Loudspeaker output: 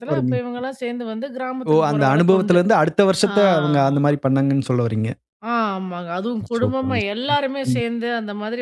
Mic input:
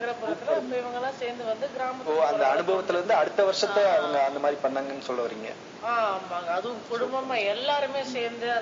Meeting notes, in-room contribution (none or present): none